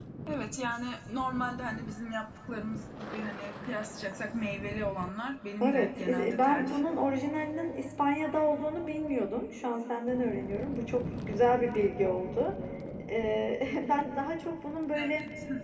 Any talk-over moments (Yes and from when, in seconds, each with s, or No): Yes, from 5.6 s